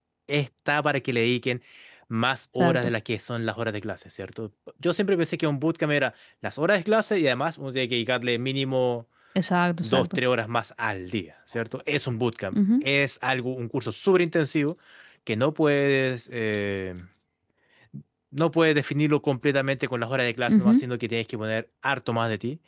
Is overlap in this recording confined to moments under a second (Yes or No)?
Yes